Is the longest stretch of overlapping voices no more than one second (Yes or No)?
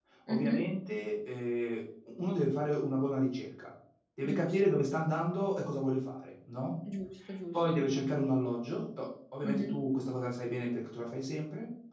Yes